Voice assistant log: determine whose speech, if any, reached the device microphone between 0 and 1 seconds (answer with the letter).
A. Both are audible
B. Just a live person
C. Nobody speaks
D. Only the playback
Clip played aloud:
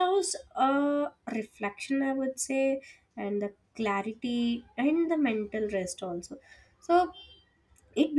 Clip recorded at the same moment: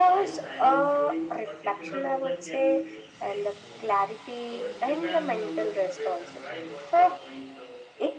A